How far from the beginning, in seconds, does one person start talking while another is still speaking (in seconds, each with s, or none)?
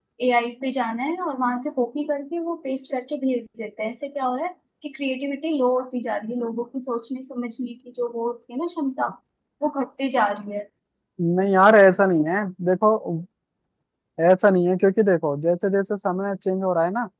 none